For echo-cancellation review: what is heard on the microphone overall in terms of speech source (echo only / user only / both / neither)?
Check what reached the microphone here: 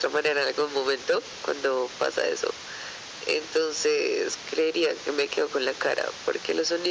echo only